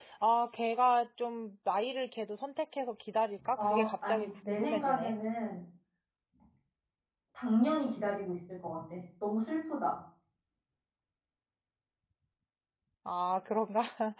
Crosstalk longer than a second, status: present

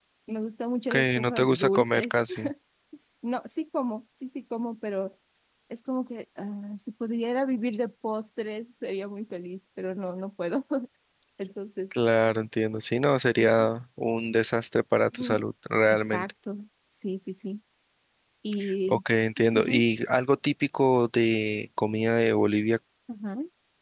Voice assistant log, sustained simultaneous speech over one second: present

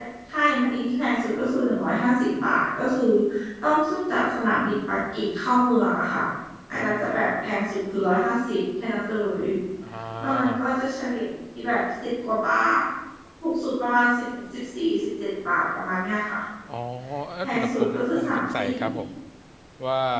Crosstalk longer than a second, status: present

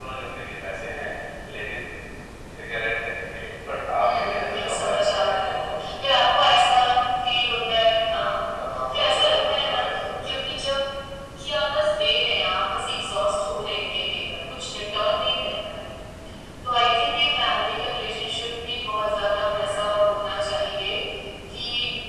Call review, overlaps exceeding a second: present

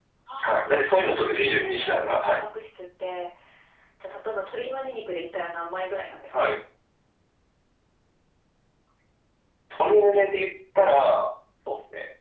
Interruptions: present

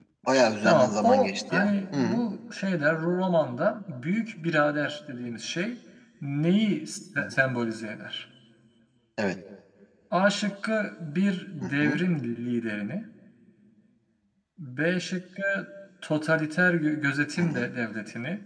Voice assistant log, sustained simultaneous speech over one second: present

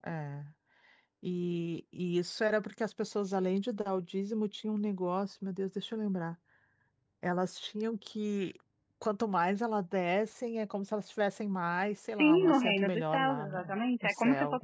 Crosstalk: present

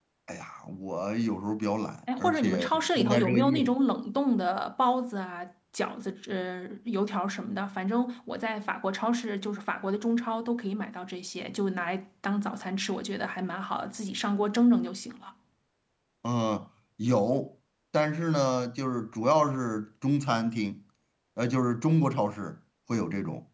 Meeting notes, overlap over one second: present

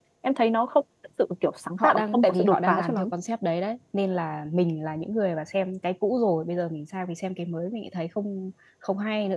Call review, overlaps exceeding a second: present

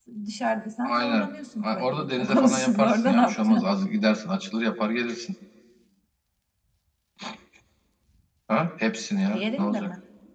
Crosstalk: present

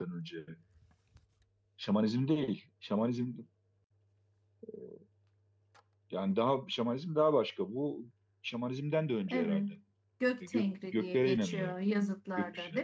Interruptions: present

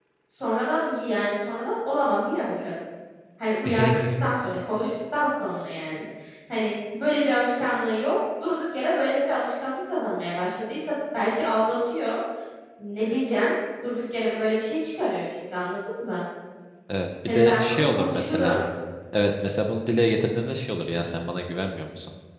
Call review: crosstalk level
present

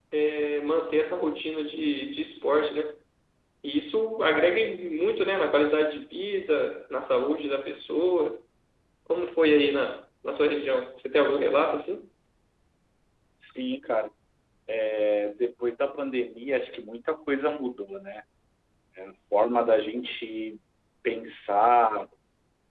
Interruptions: none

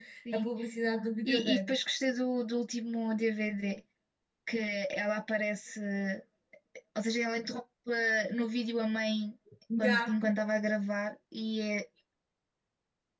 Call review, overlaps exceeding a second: none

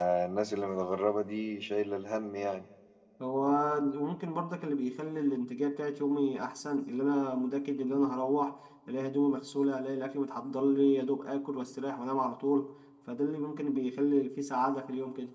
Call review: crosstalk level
none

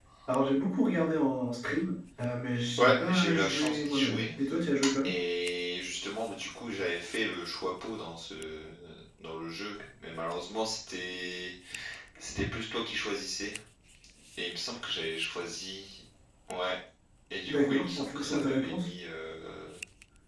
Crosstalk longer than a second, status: present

